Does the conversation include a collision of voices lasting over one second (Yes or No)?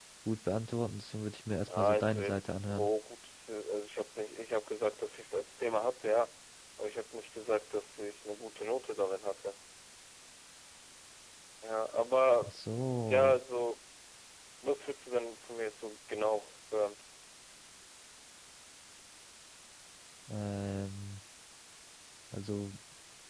Yes